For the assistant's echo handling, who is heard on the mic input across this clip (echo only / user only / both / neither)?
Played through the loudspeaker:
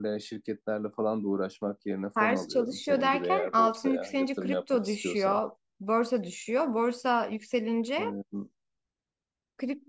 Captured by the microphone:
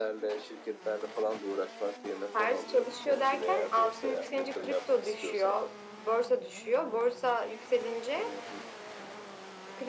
echo only